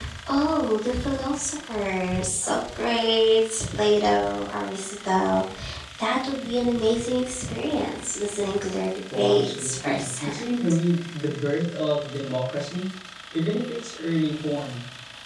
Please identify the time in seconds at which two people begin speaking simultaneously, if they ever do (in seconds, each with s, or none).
9.1 s